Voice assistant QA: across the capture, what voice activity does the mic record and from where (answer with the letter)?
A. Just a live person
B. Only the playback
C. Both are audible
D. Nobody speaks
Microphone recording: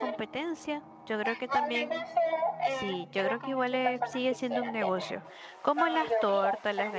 C